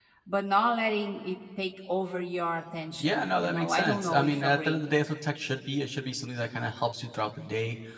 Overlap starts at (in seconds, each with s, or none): 3.0 s